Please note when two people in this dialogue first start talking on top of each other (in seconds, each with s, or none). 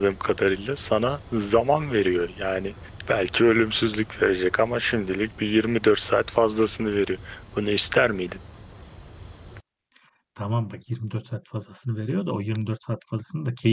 none